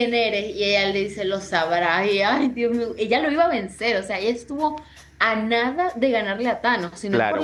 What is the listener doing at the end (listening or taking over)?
taking over